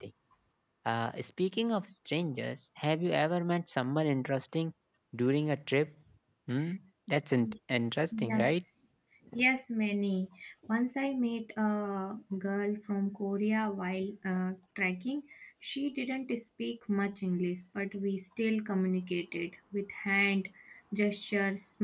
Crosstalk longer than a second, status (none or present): none